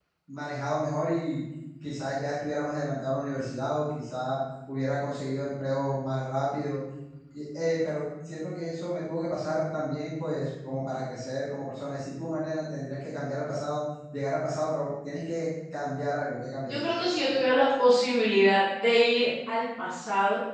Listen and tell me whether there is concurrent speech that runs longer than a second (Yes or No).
No